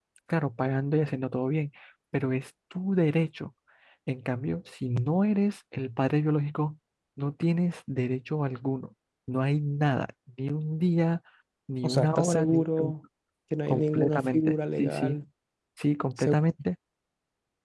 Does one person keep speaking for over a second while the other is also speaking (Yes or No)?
Yes